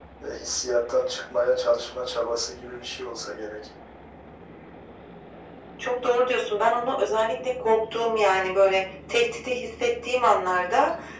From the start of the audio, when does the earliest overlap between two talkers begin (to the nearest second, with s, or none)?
none